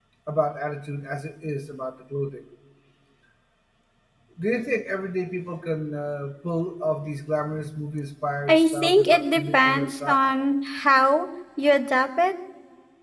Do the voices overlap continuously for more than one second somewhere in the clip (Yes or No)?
Yes